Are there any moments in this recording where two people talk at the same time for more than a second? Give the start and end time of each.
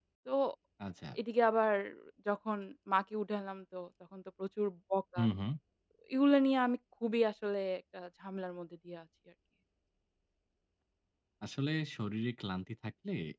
none

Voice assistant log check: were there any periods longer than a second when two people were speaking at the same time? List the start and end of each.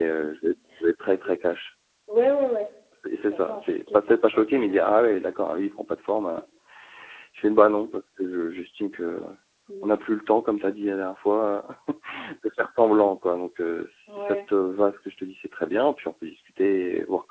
3.3-4.8

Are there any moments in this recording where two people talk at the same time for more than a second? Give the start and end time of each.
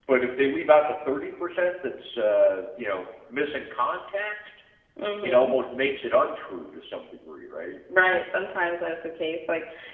none

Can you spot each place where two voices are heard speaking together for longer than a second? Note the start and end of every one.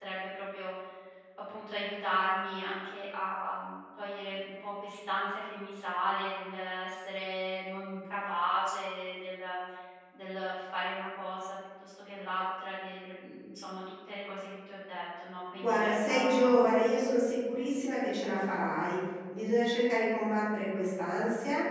15.6-16.8

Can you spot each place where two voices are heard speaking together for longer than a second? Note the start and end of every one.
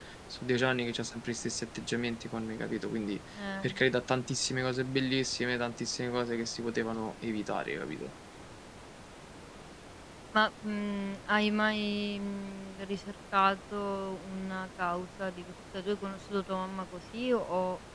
none

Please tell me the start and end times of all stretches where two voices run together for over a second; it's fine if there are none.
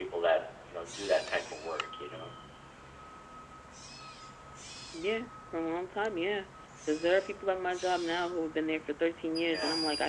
none

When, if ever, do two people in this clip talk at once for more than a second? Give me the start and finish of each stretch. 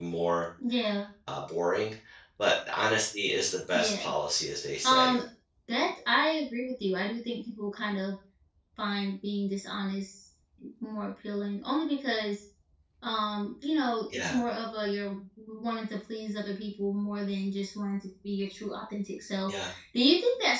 none

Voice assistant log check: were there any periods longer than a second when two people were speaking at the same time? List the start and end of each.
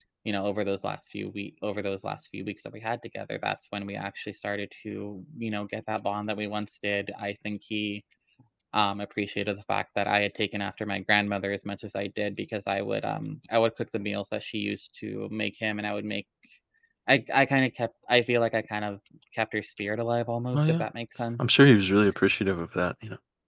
none

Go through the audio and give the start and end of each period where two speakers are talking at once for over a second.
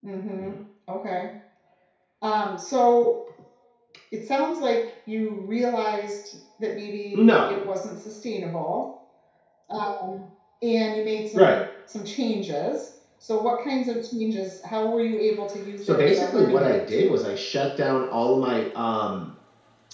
15.8-17.3

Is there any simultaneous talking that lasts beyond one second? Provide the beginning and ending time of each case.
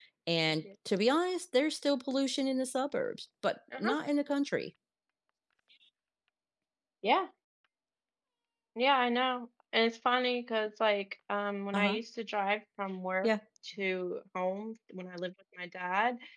none

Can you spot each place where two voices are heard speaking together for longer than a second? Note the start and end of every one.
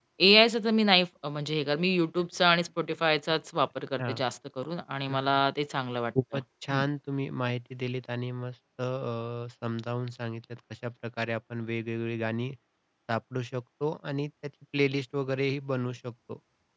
none

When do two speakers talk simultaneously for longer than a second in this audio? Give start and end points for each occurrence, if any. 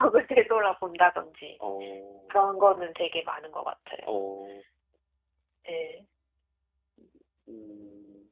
none

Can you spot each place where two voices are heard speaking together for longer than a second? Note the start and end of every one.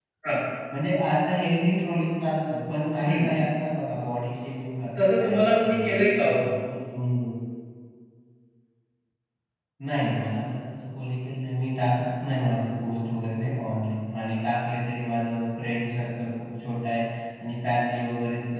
5.0-6.3

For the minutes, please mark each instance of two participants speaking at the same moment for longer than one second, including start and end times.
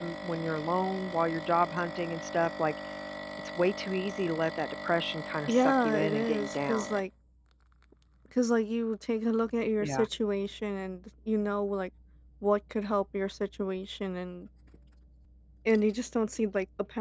5.5-6.9

